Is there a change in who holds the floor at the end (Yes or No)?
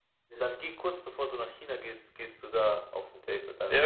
Yes